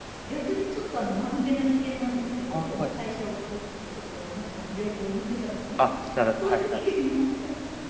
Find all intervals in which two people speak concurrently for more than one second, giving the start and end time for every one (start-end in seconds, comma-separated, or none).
none